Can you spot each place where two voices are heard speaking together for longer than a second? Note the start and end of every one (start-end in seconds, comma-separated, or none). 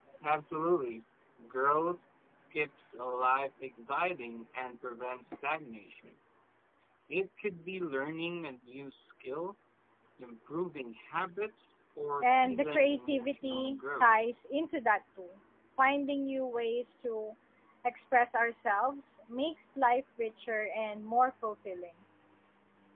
12.2-14.1